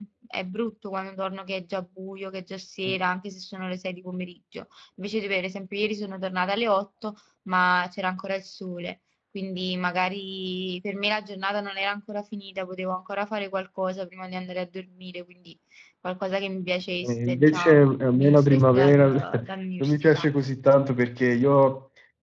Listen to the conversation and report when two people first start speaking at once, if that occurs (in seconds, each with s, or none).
17.0 s